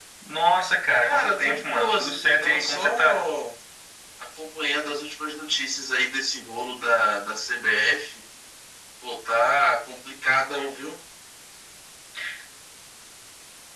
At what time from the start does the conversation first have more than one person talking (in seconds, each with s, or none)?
1.0 s